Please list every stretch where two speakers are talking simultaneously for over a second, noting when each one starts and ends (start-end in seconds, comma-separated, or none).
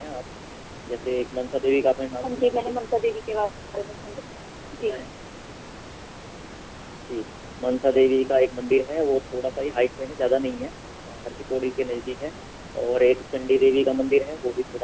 none